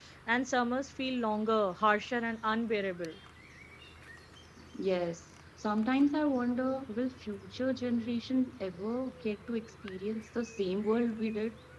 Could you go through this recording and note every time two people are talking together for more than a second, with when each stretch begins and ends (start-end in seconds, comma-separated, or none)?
none